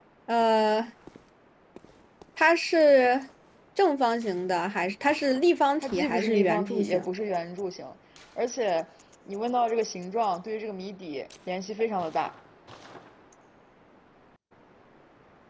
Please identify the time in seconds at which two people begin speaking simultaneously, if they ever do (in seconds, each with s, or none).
5.8 s